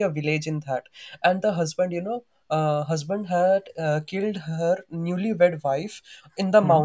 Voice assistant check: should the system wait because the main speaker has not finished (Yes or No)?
Yes